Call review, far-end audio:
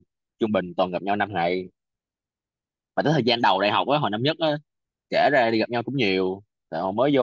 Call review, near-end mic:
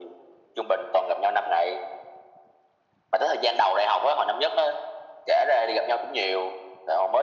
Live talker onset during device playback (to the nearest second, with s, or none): none